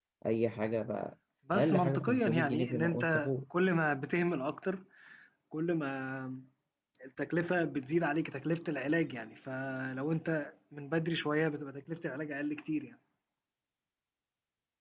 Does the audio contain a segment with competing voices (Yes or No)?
Yes